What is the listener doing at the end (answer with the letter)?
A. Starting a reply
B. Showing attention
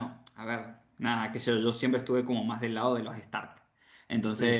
B